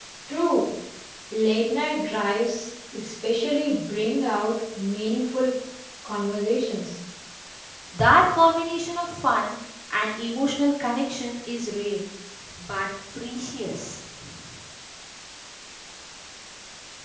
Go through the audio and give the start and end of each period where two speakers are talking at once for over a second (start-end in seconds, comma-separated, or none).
none